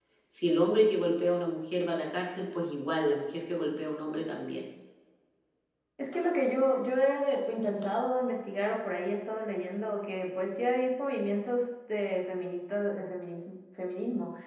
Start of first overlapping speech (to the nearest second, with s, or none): none